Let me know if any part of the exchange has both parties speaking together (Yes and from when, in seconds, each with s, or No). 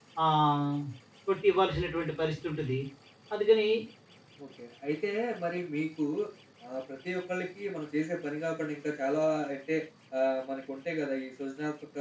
No